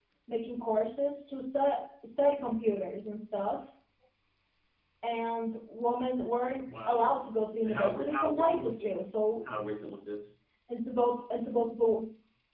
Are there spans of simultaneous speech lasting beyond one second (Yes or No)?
Yes